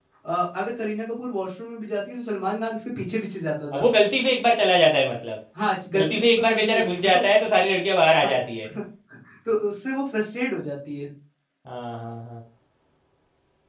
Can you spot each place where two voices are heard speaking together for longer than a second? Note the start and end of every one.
6.0-7.2

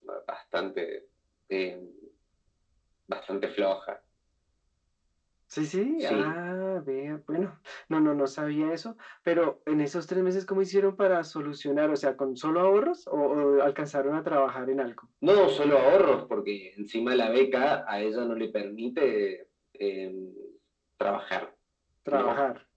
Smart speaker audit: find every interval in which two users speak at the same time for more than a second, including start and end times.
none

